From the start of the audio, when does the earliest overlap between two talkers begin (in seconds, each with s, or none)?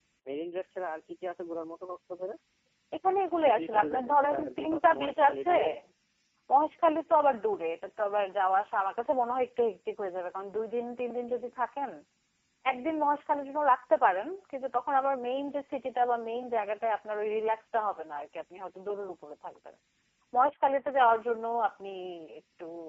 3.4 s